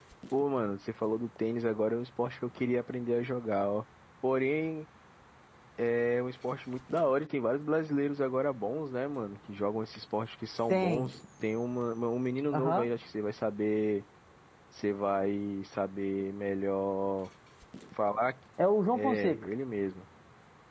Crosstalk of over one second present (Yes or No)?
No